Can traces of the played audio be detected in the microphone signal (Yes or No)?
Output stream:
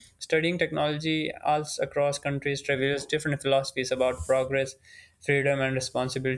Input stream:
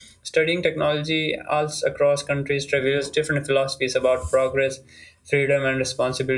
Yes